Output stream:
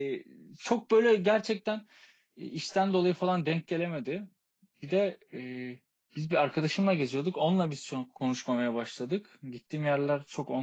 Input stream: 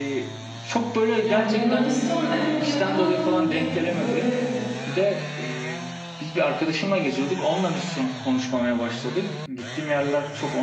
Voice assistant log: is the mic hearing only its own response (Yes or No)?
No